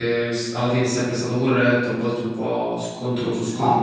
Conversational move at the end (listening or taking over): taking over